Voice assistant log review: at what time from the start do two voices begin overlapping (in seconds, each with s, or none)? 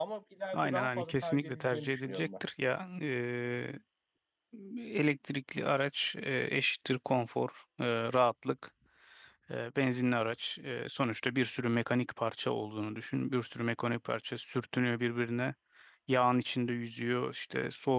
0.5 s